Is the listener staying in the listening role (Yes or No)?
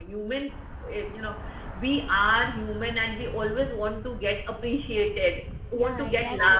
No